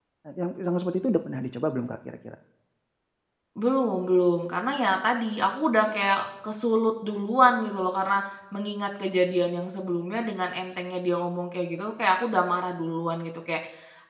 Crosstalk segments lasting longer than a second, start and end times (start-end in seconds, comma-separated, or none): none